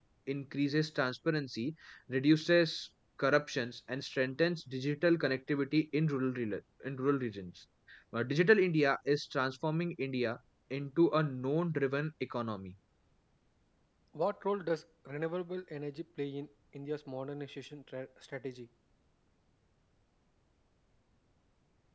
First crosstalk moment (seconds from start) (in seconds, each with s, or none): none